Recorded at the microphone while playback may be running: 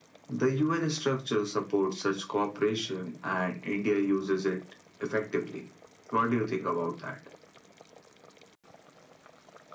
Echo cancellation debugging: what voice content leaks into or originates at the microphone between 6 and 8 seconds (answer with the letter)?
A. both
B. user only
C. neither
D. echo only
D